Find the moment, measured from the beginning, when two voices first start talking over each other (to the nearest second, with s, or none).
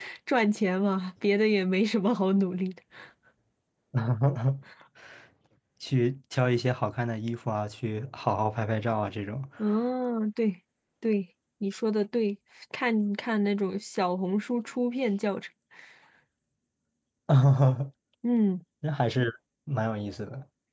none